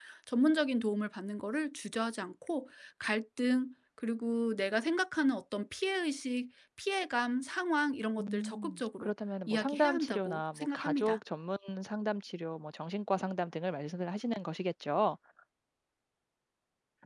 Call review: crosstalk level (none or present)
present